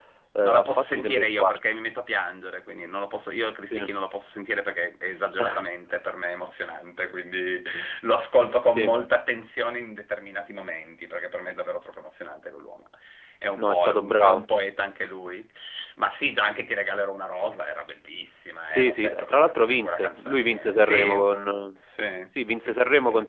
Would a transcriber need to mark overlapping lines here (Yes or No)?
Yes